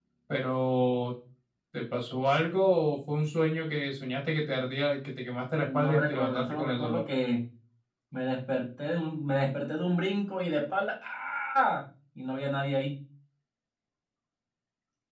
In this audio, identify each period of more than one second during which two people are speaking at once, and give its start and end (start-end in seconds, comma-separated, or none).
5.6-7.0